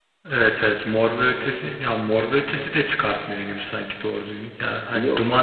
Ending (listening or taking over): listening